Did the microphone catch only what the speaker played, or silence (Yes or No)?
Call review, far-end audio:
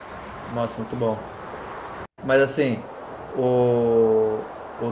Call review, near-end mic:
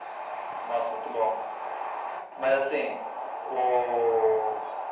Yes